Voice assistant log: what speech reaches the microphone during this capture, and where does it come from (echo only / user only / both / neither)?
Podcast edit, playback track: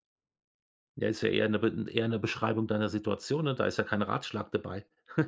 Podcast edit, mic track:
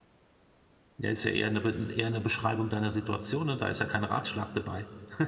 echo only